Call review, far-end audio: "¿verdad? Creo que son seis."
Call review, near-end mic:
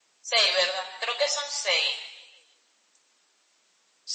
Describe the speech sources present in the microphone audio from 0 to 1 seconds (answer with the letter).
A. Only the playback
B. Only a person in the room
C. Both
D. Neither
A